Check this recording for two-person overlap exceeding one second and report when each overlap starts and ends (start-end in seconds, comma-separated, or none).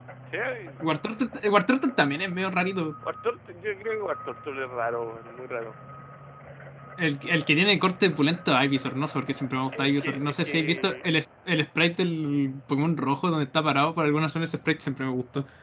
9.8-11.1